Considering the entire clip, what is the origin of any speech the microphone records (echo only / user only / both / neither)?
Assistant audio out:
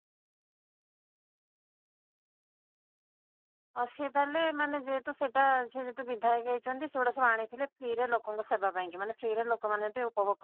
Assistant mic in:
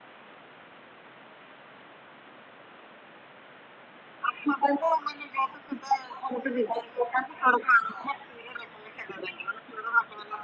echo only